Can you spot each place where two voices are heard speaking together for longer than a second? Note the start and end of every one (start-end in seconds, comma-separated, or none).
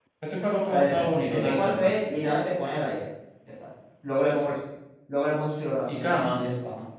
0.7-1.9